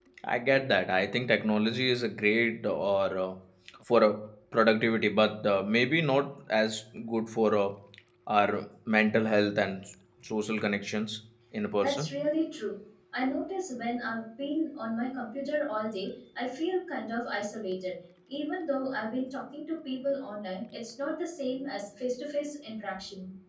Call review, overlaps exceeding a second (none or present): none